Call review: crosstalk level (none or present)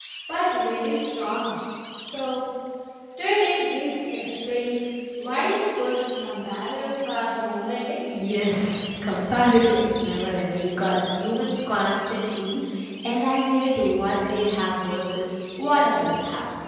none